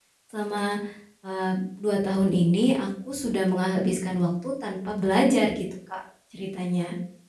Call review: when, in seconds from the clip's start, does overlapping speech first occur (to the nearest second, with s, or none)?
none